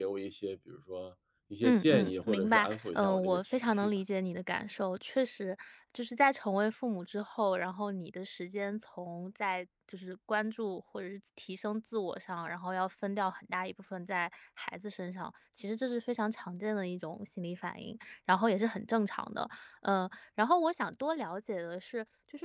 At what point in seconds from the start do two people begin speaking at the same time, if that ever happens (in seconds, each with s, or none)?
1.6 s